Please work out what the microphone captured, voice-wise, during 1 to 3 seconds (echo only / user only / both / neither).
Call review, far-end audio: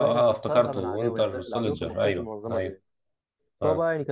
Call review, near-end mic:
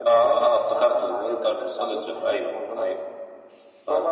echo only